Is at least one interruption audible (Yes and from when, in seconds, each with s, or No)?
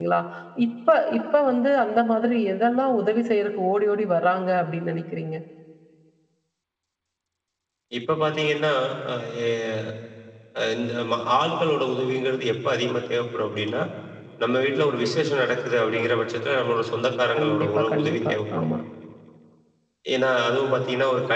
Yes, from 17.4 s